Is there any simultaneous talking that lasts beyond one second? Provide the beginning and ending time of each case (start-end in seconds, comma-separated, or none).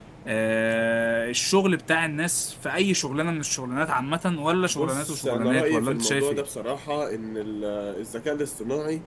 4.7-6.4